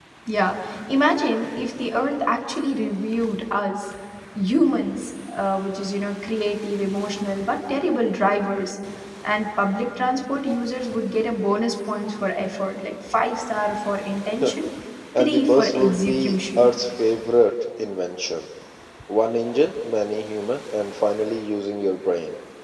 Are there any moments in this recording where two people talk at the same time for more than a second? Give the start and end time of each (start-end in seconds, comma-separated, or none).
15.2-16.7